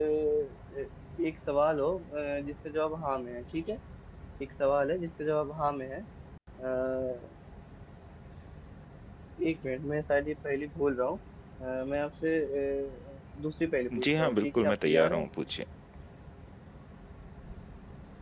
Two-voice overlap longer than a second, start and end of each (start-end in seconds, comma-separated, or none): 14.0-15.2